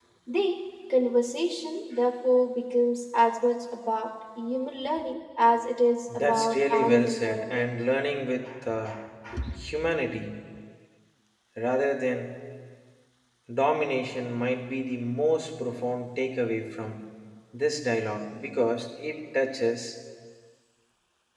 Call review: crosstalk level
present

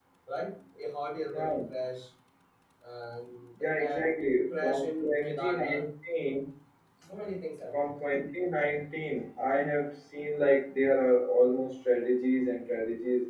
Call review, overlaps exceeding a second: present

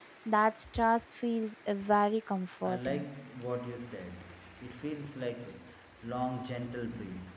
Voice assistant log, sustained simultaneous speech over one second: none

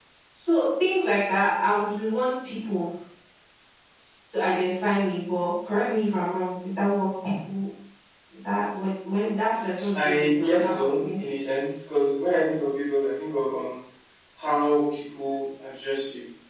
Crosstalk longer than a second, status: present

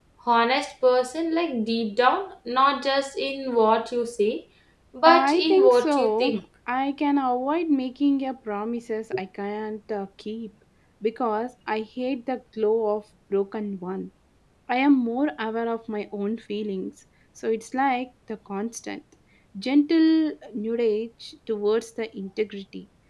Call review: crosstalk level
present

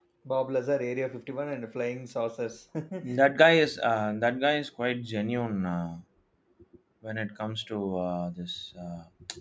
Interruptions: none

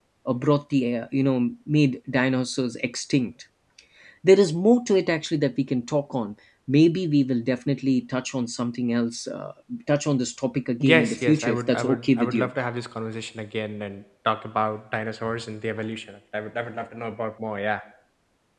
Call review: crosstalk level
present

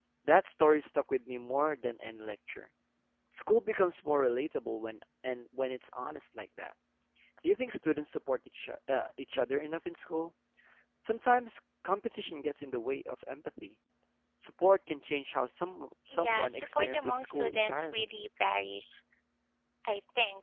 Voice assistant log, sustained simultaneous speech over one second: present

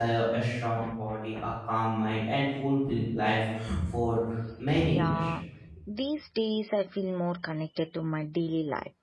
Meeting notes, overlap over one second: none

